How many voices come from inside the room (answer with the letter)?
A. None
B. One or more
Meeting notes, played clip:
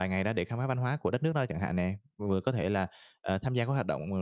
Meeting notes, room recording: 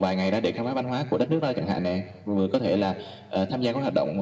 A